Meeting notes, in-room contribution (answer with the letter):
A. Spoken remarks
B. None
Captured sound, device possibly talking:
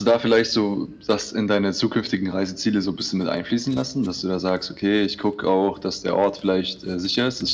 B